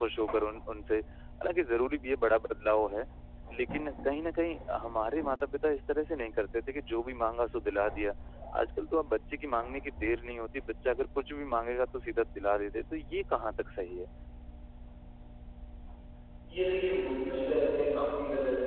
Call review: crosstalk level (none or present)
none